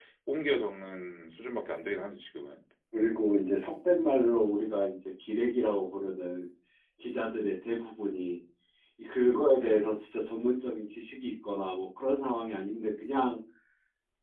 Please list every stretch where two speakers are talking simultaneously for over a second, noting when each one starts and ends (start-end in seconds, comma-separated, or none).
none